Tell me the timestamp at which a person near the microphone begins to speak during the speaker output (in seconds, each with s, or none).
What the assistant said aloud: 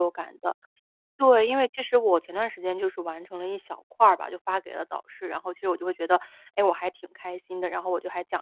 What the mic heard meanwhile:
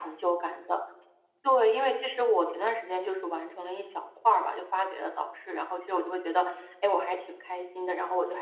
none